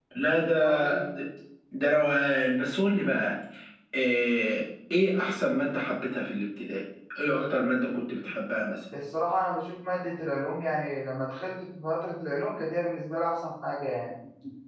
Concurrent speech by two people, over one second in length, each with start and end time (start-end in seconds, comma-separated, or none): none